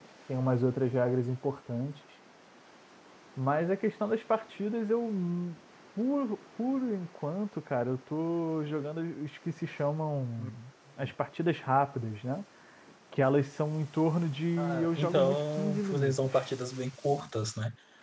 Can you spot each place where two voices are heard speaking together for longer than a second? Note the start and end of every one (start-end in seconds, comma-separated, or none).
14.6-16.3